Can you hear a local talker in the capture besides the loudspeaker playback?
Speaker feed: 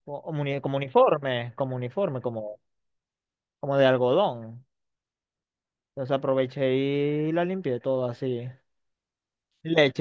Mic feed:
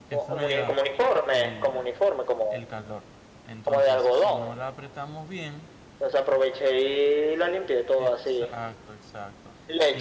Yes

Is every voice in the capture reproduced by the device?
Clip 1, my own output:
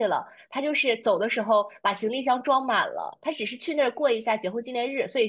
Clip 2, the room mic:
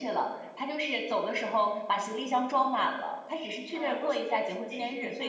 No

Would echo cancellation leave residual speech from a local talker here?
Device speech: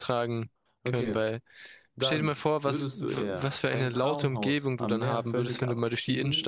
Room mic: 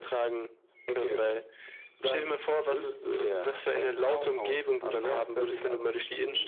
No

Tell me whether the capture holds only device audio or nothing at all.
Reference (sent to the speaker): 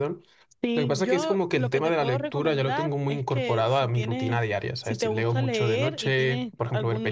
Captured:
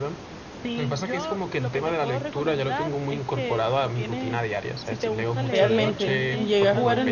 No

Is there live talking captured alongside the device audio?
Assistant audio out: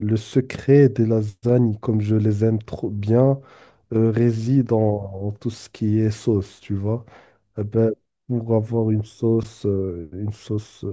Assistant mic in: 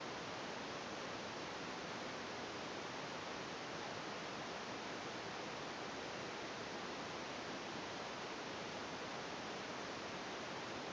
No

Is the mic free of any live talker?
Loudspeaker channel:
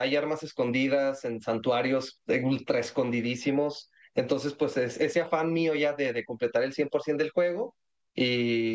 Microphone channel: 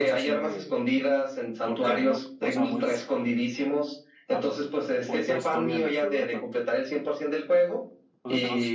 No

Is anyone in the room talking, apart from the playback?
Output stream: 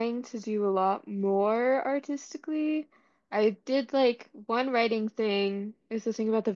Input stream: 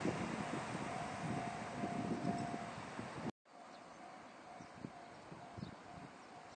No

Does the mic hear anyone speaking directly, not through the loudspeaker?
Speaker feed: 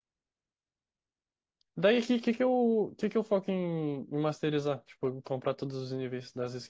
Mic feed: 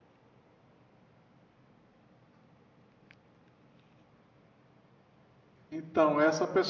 Yes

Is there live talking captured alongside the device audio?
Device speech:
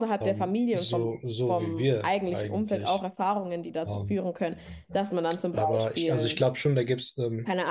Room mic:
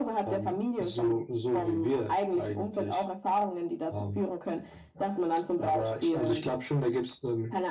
No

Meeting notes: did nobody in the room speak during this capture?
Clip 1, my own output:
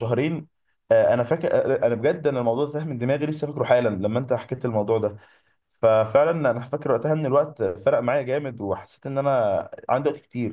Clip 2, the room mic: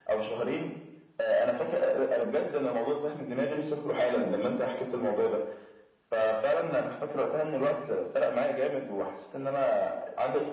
Yes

